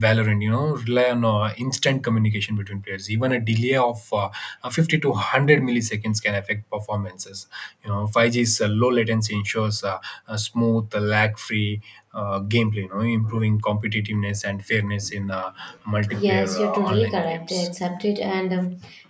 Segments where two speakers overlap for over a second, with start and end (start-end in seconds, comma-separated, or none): 16.2-17.7